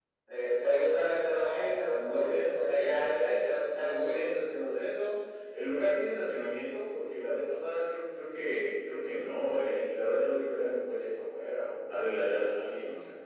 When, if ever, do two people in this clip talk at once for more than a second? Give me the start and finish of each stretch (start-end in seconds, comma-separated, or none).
1.9-4.4